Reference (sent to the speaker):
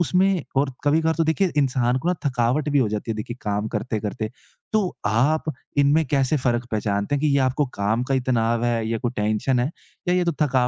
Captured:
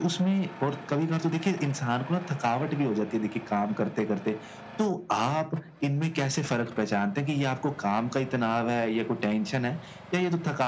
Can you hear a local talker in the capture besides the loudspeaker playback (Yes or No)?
No